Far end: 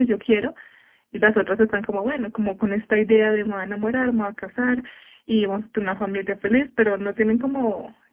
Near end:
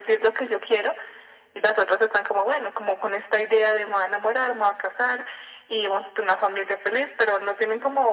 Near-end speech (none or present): none